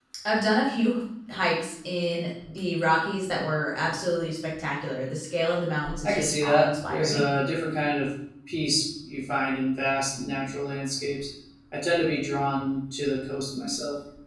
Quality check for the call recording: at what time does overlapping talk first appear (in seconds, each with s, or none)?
5.8 s